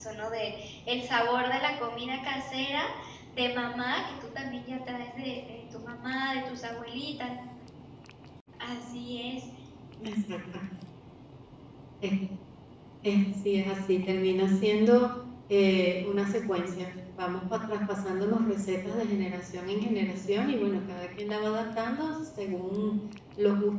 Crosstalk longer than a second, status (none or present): none